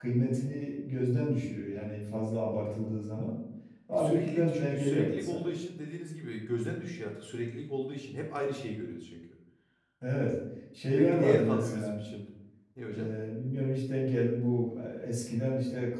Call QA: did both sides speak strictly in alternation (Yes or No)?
No